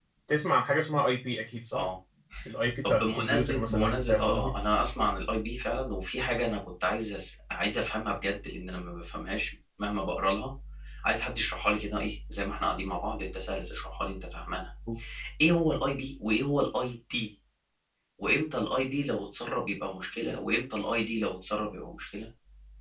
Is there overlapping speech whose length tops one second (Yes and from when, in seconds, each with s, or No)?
Yes, from 2.8 s